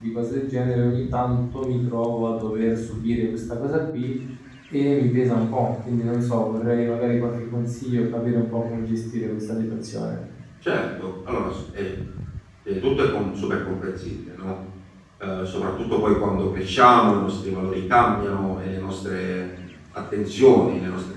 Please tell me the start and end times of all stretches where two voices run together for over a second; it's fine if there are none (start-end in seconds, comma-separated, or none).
none